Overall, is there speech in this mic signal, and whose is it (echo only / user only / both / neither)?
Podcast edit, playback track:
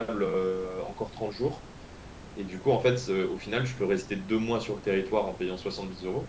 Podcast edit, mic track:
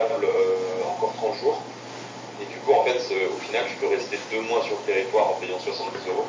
echo only